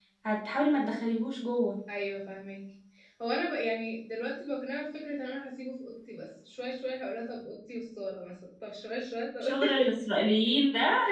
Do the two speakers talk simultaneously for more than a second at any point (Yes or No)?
No